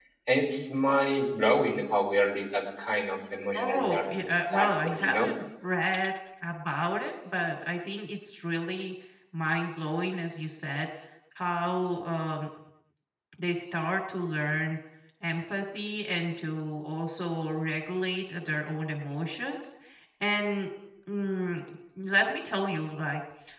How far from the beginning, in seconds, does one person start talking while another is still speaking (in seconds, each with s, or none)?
3.5 s